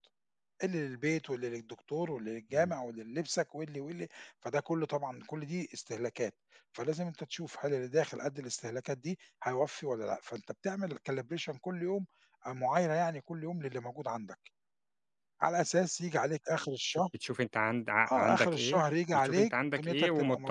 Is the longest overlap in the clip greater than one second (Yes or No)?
Yes